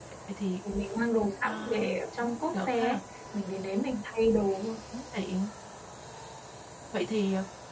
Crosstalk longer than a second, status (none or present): present